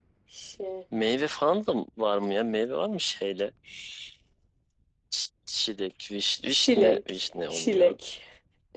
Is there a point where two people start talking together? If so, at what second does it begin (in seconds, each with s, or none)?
6.5 s